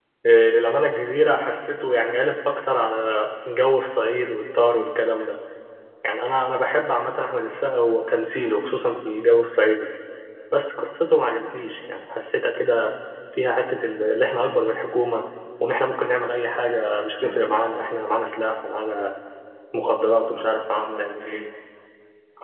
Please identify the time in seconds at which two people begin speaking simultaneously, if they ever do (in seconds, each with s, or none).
none